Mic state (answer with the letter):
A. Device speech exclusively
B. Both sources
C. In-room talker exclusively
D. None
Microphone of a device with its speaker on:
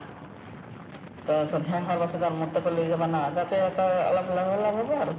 A